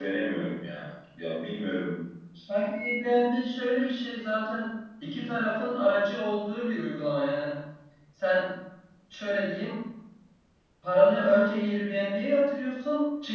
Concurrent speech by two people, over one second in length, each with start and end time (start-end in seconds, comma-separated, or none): none